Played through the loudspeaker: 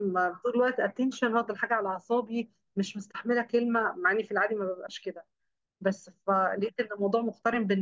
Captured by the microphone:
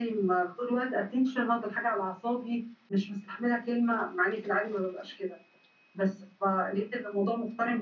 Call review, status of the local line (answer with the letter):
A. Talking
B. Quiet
B